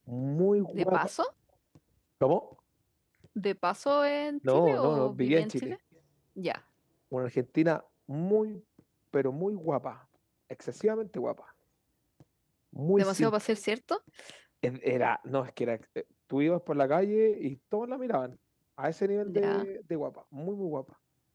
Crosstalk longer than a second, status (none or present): present